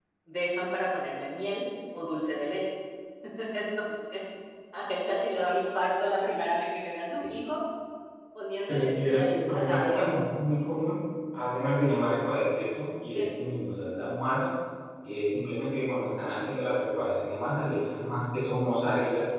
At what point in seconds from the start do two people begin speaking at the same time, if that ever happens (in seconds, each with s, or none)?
8.7 s